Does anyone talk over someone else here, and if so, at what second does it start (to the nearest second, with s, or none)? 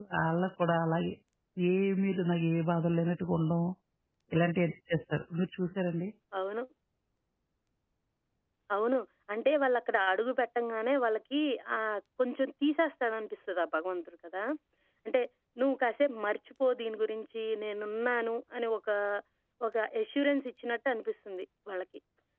none